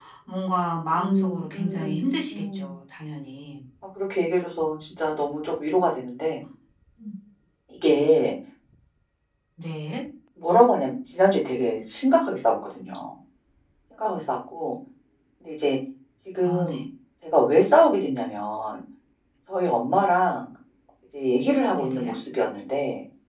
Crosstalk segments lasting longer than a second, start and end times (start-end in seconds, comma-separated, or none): 1.0-2.6